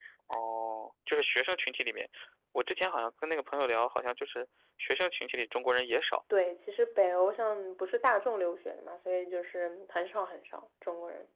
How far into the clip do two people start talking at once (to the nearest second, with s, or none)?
none